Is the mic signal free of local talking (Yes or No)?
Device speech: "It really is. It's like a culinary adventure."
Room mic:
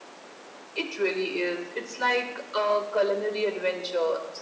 Yes